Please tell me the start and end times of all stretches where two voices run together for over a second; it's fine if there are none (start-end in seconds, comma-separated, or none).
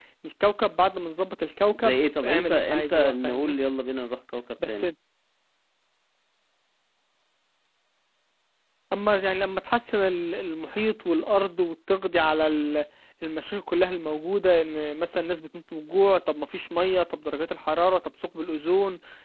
1.7-3.5